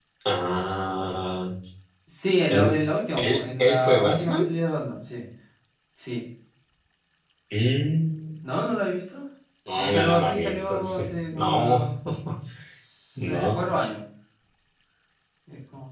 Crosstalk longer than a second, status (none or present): present